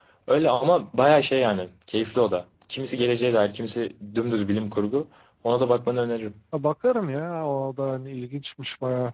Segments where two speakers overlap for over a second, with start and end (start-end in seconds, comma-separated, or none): none